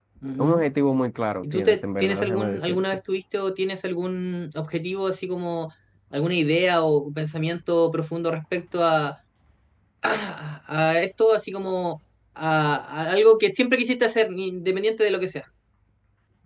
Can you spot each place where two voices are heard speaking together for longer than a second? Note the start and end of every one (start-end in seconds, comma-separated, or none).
1.4-3.0